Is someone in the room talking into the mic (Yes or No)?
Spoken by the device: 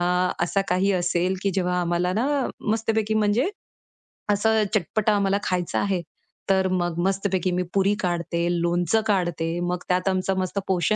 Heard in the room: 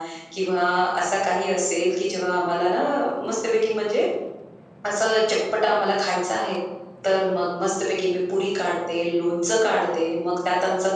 No